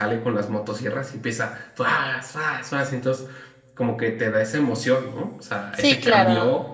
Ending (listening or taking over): taking over